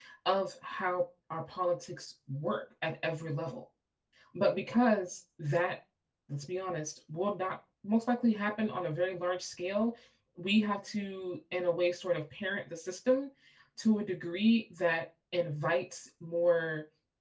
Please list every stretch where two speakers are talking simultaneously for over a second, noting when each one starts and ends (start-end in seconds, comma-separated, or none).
none